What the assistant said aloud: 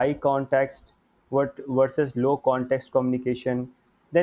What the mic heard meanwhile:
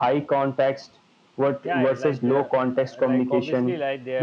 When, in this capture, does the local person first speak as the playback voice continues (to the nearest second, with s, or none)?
2 s